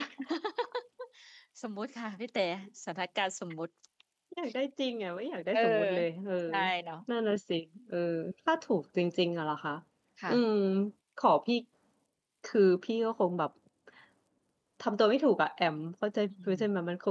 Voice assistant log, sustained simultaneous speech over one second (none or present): none